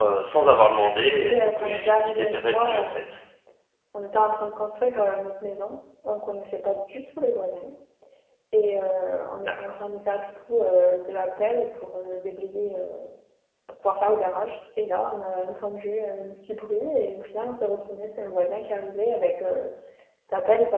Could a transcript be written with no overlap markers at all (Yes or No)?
No